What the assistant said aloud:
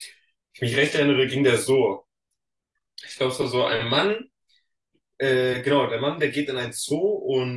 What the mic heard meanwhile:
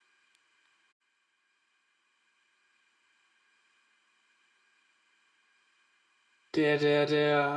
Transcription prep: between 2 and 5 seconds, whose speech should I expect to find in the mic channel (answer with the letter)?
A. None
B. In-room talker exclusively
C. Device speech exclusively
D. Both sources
A